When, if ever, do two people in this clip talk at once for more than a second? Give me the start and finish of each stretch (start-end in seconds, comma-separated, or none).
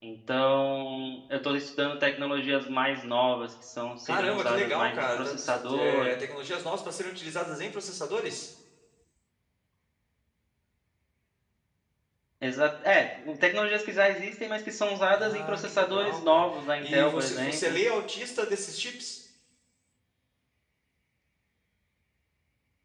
4.0-6.1, 15.1-17.8